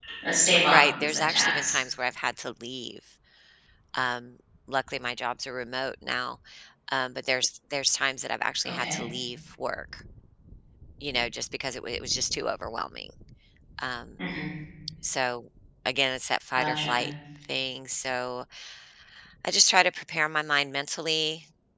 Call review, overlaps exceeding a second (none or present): present